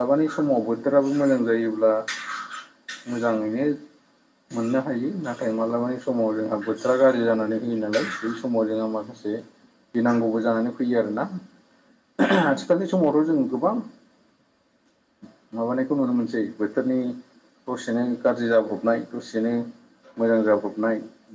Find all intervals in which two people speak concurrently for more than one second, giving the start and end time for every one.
none

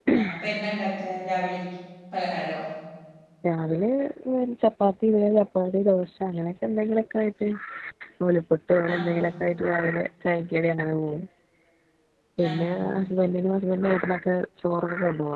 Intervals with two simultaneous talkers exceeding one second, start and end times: none

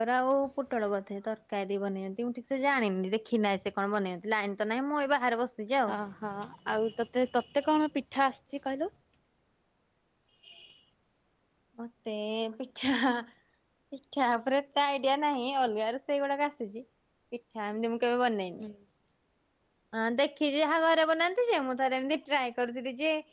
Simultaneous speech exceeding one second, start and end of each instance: none

